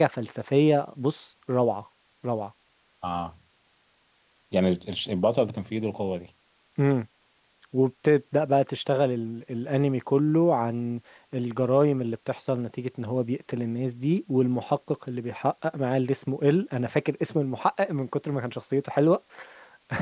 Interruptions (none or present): none